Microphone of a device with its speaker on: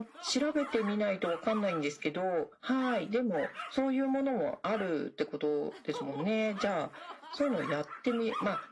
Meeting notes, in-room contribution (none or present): none